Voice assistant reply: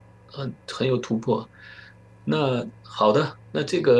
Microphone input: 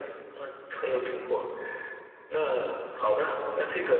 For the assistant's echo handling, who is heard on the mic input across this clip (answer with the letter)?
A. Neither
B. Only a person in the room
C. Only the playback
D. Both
C